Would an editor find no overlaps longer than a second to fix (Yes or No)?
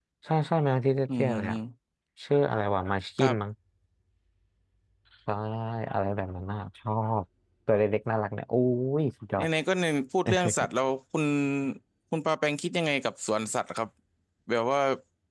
Yes